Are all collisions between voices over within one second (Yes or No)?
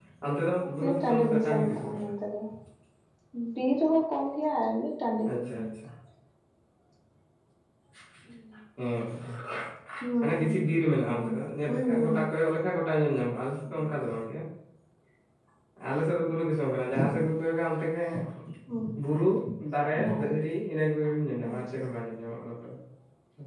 No